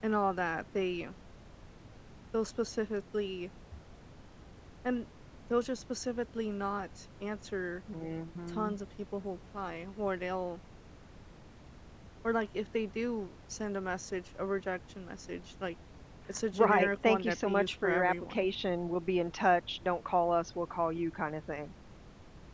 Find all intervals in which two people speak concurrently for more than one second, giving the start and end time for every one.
16.5-18.5

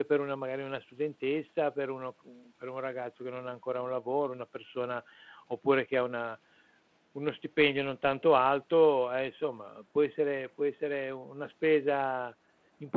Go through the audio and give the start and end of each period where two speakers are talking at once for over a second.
none

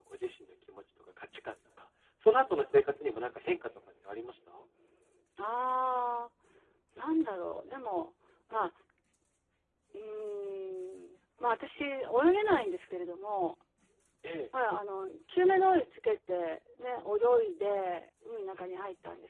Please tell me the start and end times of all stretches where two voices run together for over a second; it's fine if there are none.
none

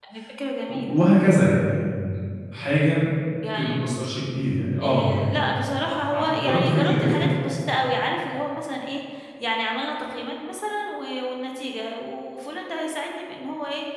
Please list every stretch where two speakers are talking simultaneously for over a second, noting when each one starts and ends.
6.1-7.3

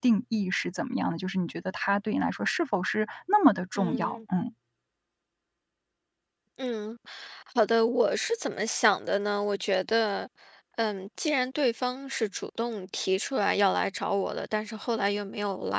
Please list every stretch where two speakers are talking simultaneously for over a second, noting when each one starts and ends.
none

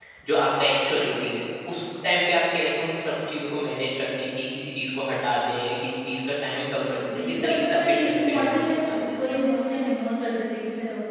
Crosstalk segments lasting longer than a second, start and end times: 7.3-9.1

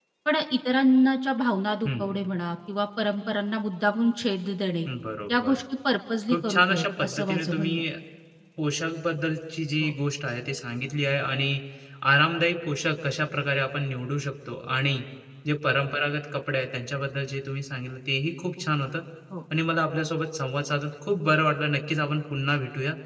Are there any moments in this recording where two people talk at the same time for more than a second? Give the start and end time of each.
6.3-7.7

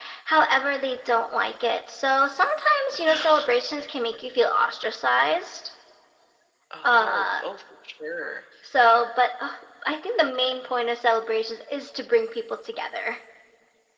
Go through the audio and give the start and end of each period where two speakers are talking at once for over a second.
none

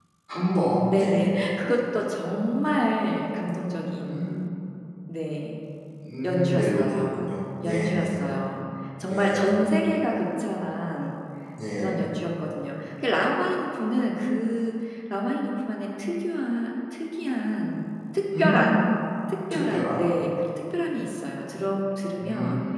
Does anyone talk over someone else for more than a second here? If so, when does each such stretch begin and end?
6.2-8.3

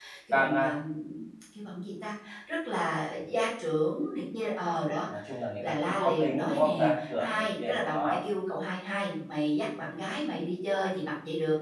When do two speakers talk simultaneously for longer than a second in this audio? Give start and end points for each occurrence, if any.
5.6-8.2

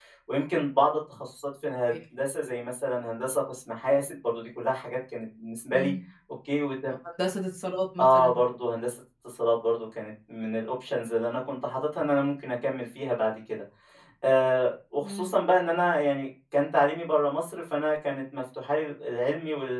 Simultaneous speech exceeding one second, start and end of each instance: none

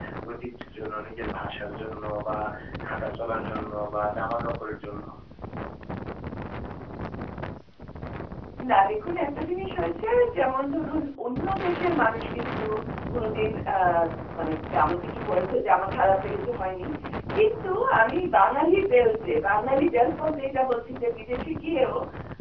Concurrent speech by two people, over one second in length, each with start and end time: none

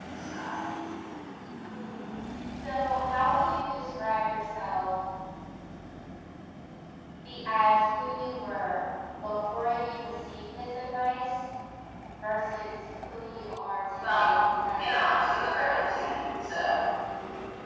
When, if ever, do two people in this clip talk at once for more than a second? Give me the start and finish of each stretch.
14.8-16.0

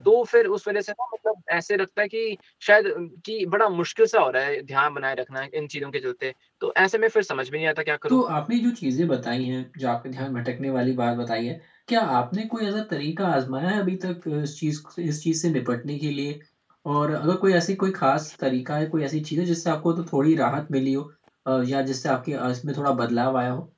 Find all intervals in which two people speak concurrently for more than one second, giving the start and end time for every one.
none

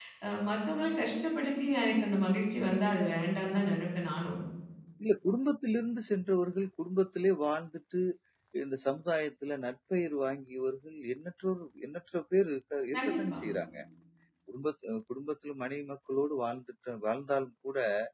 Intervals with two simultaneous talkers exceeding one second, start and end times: none

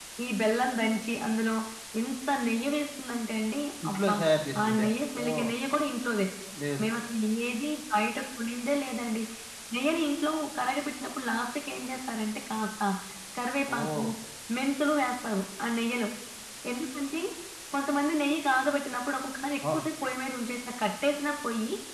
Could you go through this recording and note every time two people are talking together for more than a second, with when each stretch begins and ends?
none

